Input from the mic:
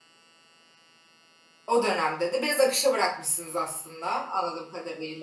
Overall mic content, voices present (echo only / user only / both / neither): user only